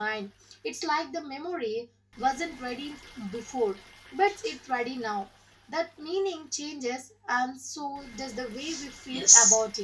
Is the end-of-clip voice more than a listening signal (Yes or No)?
Yes